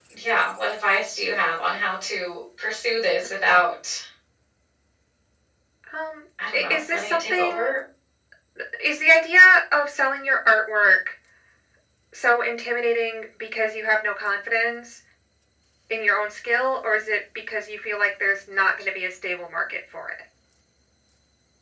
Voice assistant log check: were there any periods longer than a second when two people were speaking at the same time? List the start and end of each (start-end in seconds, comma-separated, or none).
6.5-7.7